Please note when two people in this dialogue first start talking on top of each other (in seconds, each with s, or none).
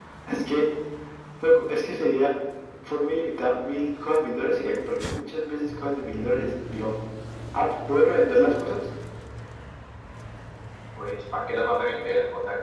none